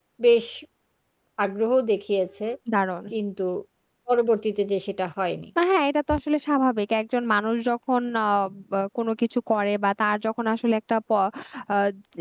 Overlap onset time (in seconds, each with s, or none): none